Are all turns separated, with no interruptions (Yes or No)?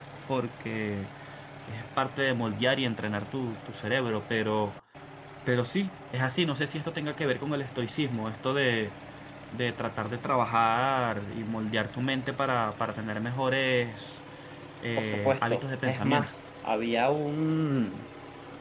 No